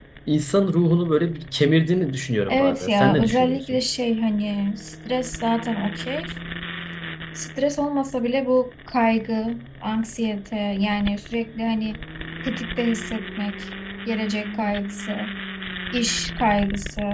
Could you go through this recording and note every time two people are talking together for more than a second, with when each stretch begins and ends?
2.5-3.8

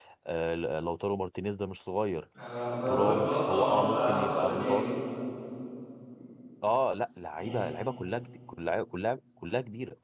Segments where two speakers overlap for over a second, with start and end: 2.9-4.8

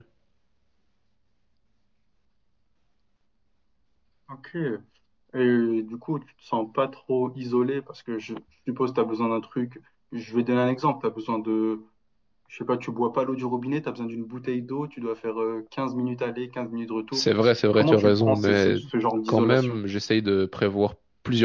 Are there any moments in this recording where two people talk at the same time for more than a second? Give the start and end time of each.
17.1-18.8

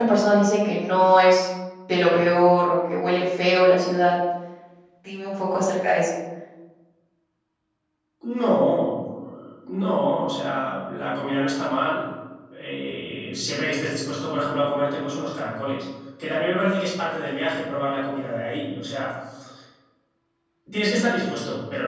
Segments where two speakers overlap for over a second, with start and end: none

